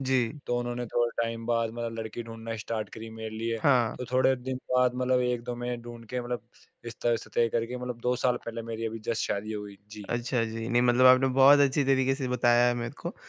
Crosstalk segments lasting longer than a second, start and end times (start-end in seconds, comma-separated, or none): none